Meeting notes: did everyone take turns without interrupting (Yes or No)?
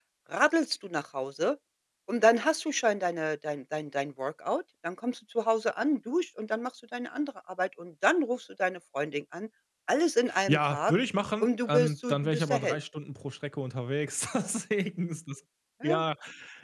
No